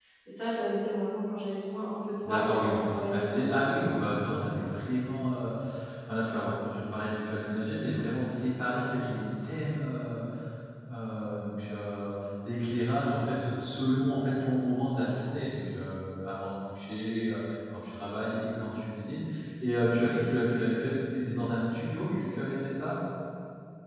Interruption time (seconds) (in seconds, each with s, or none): 2.2 s